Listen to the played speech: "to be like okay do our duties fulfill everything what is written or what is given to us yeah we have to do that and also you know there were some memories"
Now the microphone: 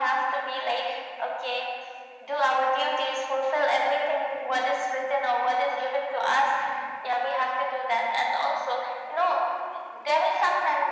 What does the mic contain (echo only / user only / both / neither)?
echo only